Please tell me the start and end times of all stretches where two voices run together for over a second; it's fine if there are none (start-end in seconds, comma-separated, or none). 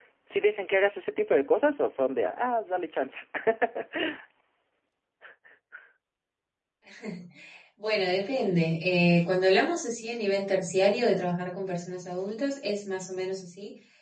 none